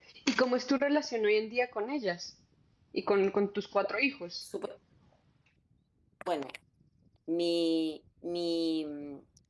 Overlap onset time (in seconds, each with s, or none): none